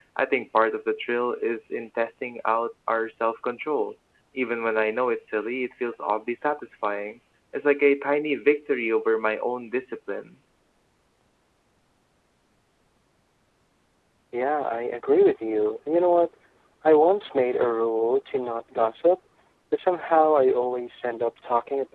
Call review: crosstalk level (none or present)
none